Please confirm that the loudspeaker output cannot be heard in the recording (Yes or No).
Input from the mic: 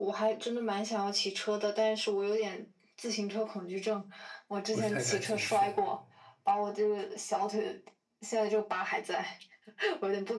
No